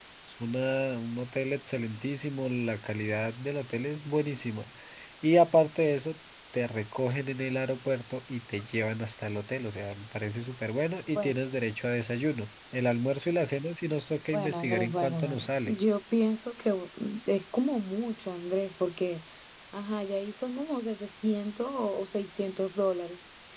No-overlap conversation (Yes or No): No